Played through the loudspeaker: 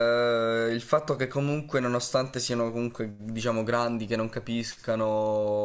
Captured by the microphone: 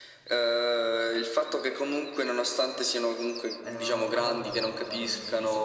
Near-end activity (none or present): present